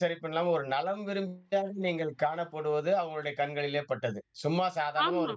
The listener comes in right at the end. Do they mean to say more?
No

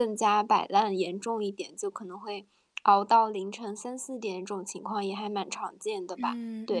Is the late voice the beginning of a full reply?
Yes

